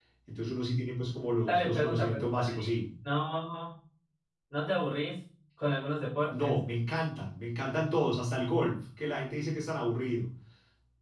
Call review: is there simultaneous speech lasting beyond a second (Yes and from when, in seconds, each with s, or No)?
Yes, from 1.5 s